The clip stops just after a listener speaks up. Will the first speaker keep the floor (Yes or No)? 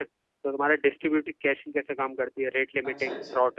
No